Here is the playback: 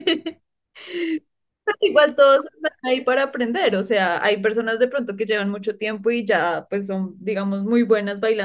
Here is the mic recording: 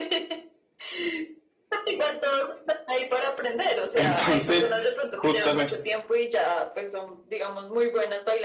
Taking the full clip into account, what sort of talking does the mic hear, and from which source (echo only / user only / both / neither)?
both